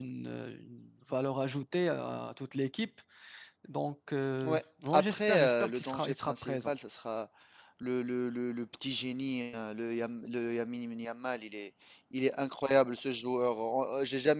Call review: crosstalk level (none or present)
present